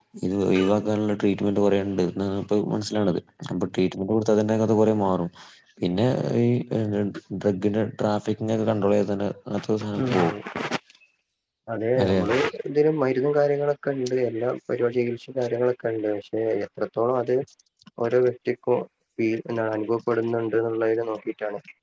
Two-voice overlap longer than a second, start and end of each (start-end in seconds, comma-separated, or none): none